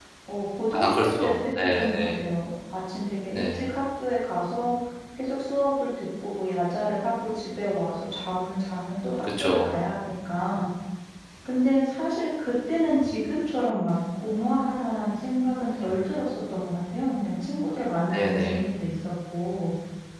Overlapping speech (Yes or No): Yes